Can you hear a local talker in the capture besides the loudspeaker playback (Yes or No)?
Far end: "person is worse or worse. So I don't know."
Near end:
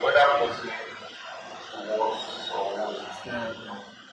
Yes